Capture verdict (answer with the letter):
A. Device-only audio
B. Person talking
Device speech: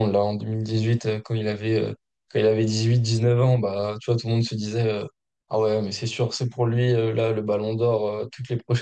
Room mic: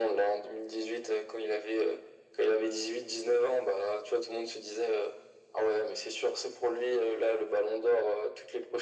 A